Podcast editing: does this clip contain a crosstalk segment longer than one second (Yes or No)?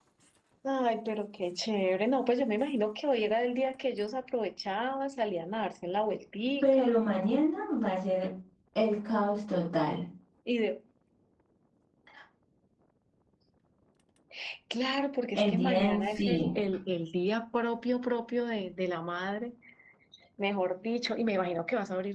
Yes